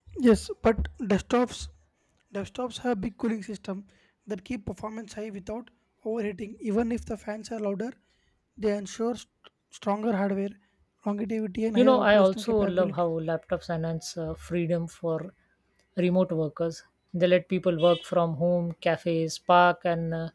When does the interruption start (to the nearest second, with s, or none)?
12 s